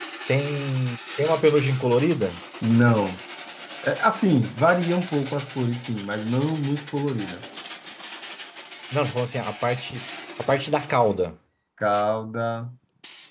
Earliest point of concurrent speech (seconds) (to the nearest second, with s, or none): none